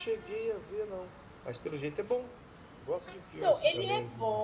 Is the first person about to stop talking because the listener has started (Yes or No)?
Yes